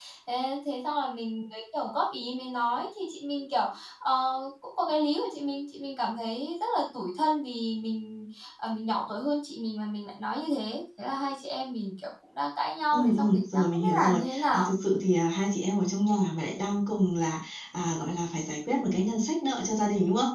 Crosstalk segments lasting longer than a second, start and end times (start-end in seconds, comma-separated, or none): 12.9-14.7